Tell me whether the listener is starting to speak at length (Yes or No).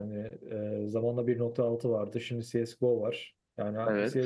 No